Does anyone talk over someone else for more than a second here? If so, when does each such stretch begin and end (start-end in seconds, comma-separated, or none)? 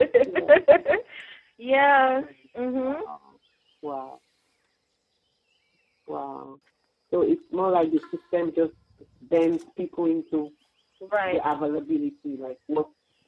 none